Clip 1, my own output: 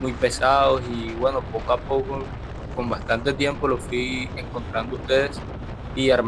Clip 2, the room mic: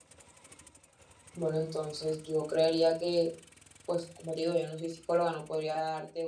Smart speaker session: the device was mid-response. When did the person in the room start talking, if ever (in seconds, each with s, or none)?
1.3 s